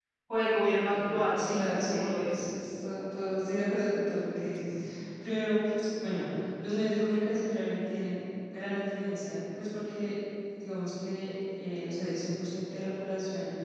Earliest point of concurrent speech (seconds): 0.9 s

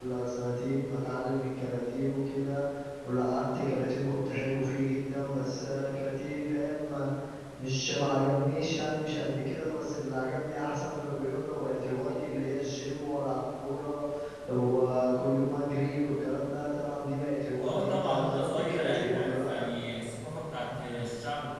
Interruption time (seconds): 17.6 s

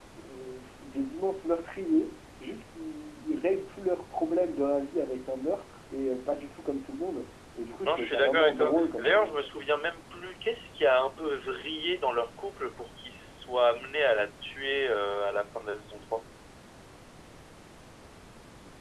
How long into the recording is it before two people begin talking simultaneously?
7.8 s

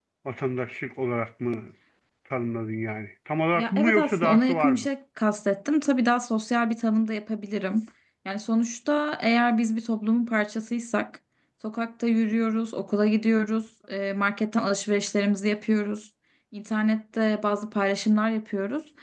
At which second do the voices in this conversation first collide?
3.5 s

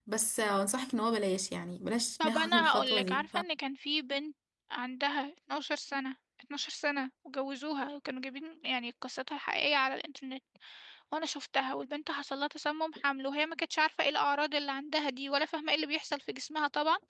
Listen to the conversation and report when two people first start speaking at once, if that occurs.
2.2 s

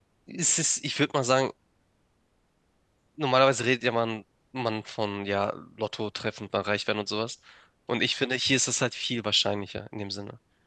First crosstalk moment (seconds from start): none

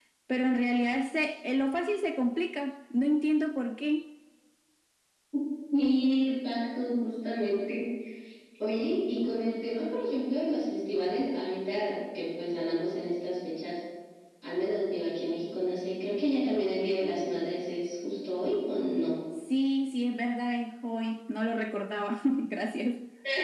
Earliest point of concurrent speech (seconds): none

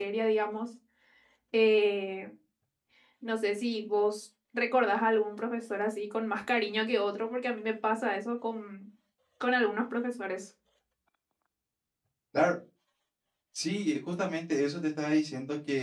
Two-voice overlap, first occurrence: none

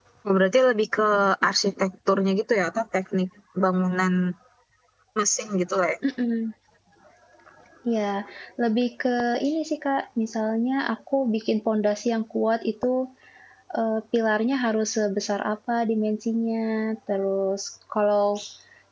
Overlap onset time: none

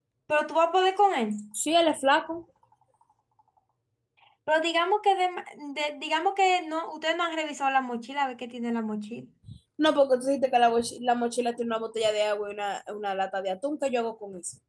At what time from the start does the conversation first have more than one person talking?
none

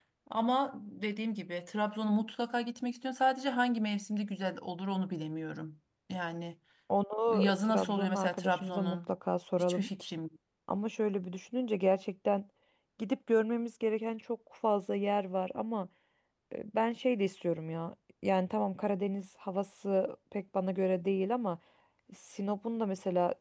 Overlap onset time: 7.3 s

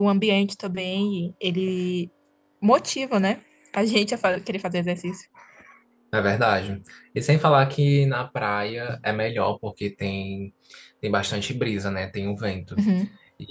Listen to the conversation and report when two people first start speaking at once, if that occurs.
none

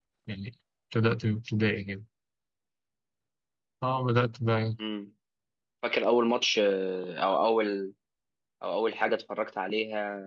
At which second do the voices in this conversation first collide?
none

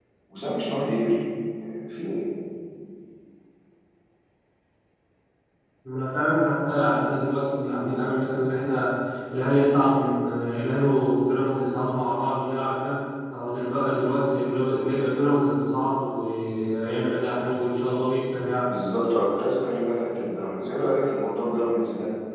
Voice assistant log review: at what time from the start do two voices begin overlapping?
none

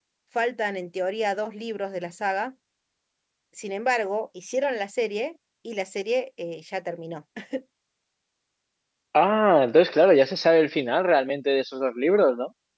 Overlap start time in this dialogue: none

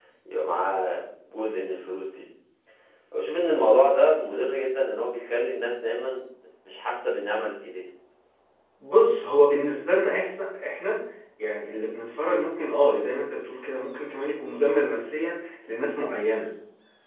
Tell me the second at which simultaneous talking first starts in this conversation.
none

